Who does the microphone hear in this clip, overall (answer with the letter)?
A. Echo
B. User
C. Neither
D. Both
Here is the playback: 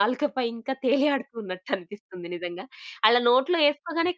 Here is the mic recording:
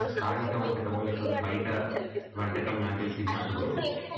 D